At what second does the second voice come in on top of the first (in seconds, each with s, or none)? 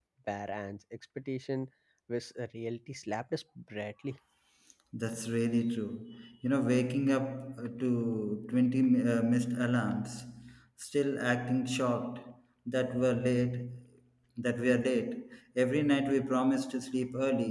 none